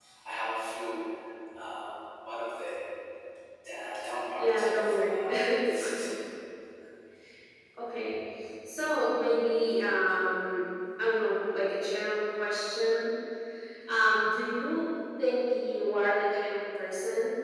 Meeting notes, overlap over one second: present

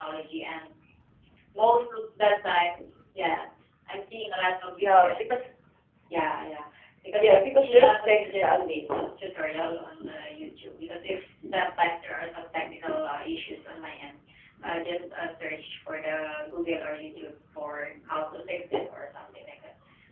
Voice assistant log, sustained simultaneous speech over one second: present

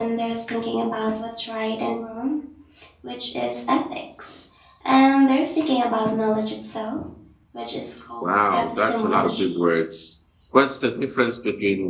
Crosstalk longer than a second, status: present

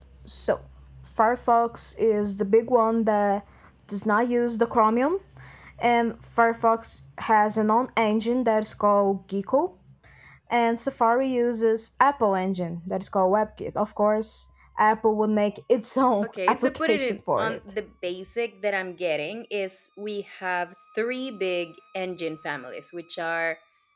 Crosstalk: present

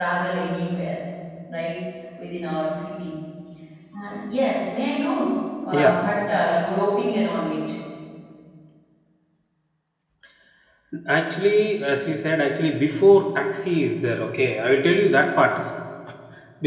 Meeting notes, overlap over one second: none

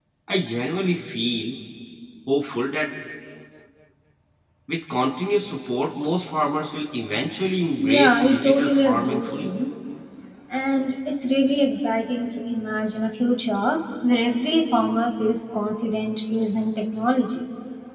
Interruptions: present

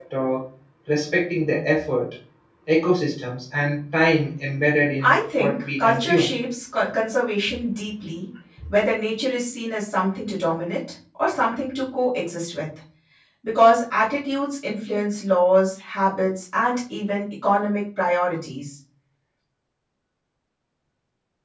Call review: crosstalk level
present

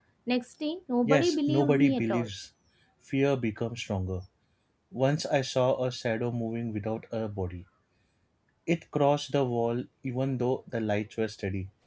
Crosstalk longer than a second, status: present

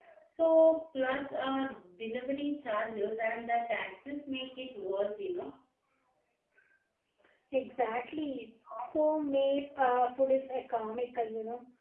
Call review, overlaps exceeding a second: none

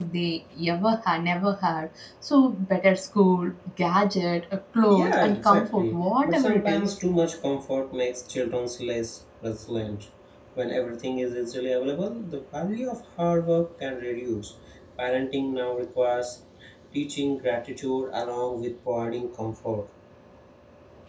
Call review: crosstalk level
present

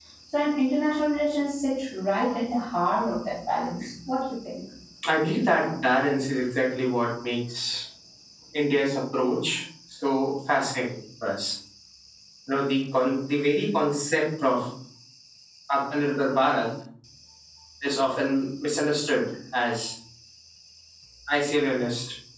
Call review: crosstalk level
none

